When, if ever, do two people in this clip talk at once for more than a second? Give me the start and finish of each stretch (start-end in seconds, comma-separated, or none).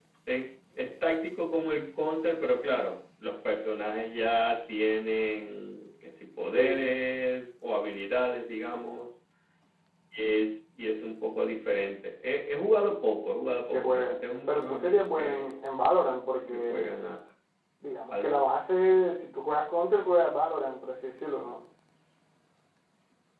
13.7-15.5